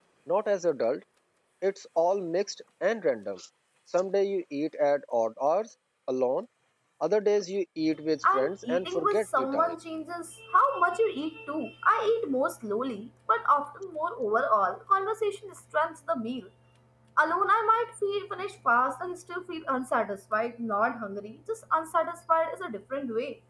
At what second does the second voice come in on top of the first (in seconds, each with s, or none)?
8.2 s